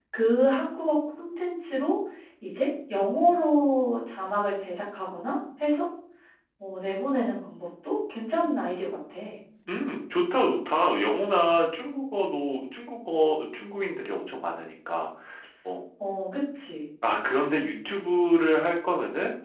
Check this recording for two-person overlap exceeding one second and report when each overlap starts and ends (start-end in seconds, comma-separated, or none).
none